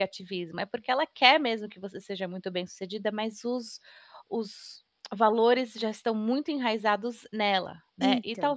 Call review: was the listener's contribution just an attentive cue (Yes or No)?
Yes